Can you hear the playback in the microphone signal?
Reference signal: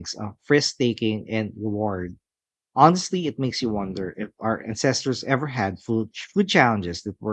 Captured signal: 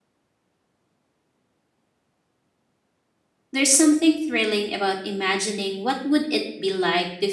No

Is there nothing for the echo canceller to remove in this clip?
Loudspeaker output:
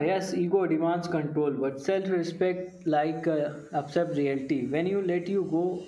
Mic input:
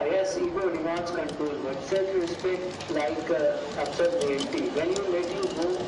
No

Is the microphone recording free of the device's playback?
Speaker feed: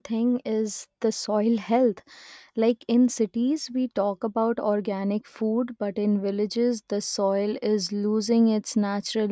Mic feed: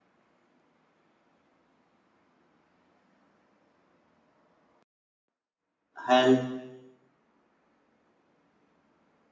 Yes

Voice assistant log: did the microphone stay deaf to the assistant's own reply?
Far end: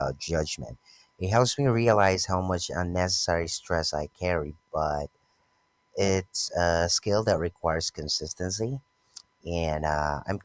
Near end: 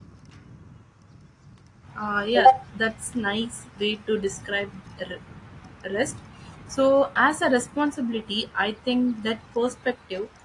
Yes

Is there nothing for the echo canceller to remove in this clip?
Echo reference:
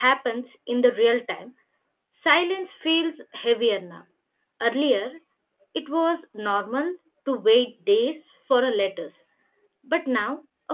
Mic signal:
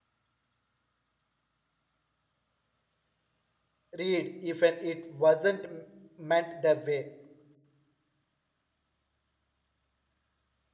Yes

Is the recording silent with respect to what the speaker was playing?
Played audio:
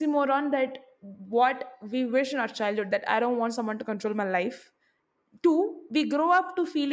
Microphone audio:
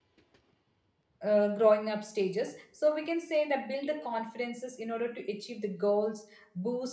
Yes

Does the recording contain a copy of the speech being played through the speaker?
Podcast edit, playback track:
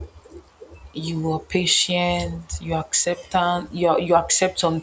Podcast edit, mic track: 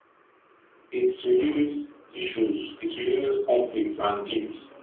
No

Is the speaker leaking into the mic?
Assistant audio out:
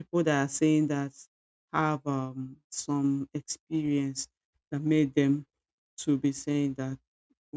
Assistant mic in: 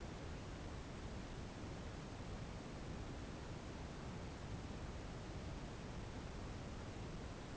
No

